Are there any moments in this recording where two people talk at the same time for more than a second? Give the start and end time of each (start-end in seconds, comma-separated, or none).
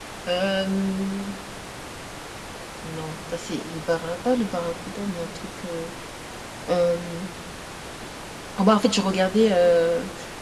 none